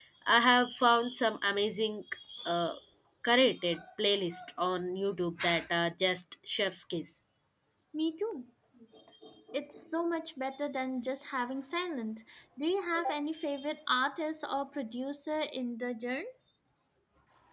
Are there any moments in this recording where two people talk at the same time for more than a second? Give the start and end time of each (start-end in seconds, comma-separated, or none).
none